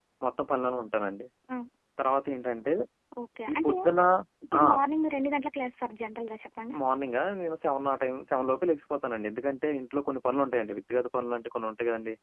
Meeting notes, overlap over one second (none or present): none